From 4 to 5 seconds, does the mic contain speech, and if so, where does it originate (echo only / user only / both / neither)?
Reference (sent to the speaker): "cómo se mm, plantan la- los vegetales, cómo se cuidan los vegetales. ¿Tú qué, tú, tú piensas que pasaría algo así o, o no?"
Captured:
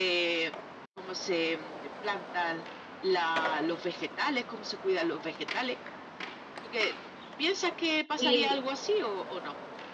echo only